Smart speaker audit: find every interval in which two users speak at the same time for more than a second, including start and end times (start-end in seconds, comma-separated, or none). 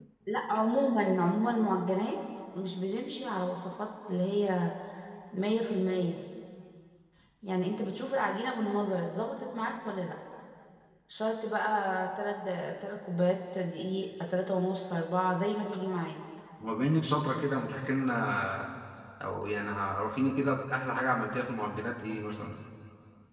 none